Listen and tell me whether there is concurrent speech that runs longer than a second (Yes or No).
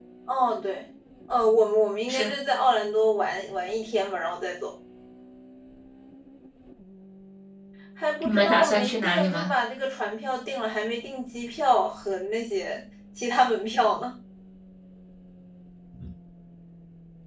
Yes